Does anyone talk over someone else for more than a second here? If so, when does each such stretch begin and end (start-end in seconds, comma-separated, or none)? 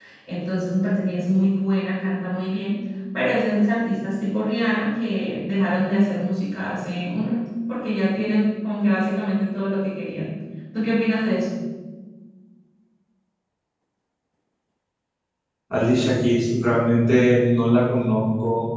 none